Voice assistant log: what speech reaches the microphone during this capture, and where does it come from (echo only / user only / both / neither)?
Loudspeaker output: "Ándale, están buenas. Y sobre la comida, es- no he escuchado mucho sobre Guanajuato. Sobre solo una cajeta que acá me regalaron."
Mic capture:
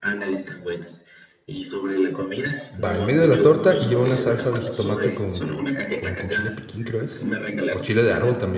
both